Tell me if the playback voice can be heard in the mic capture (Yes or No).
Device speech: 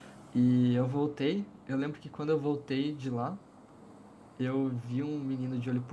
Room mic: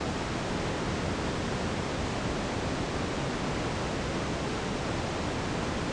No